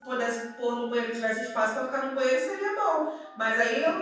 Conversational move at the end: listening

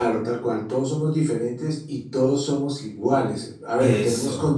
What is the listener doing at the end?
listening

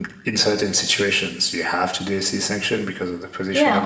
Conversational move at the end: taking over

